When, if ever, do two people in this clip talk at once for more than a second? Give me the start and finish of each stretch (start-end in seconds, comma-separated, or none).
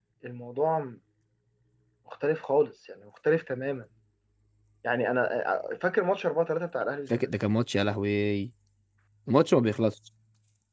none